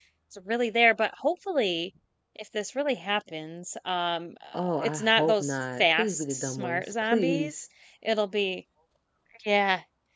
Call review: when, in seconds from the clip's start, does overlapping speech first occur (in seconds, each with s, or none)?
4.5 s